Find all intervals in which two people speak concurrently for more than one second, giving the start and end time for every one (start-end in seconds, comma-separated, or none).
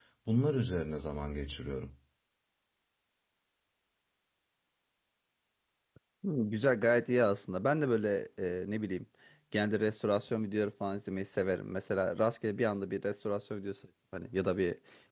none